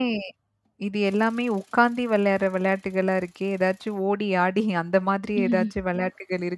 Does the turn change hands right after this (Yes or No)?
No